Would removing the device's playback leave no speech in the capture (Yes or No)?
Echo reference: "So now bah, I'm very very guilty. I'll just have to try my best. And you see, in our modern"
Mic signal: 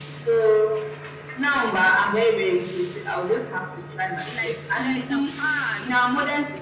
No